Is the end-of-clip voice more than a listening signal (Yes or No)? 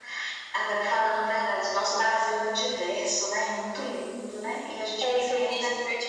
Yes